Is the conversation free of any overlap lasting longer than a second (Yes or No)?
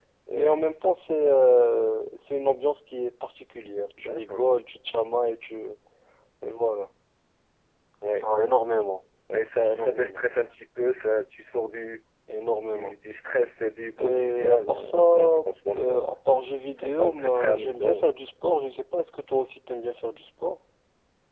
No